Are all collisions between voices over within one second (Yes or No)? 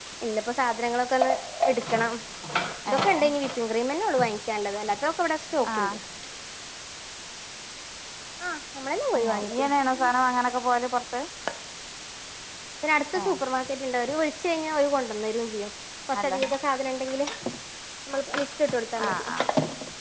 Yes